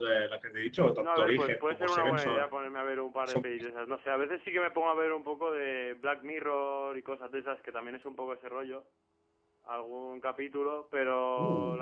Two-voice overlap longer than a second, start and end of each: 1.0-2.5

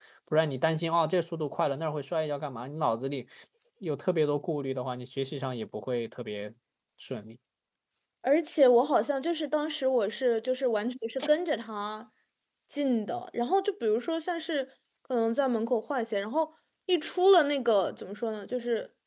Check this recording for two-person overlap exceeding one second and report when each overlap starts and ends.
none

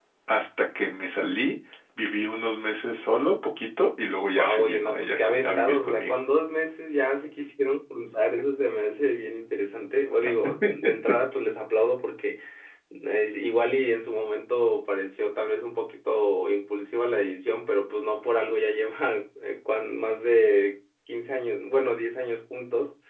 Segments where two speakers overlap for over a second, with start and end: 4.2-6.2

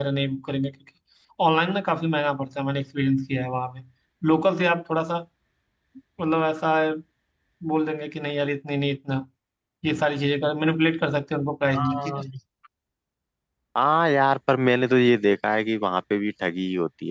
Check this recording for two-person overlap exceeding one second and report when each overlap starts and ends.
none

